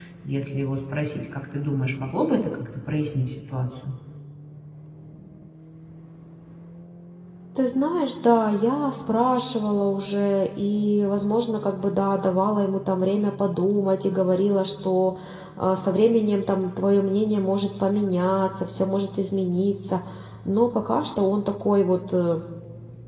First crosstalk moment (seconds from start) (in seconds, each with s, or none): none